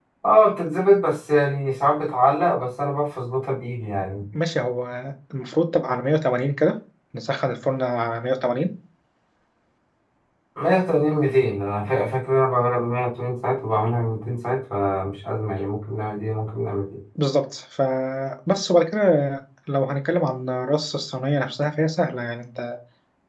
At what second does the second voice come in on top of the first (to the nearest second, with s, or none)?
none